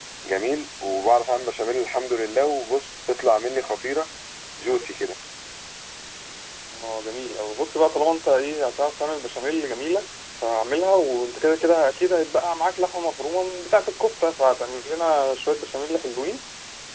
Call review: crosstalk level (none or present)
none